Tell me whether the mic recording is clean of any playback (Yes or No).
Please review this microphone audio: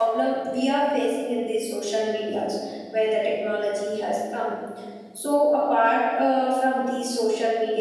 Yes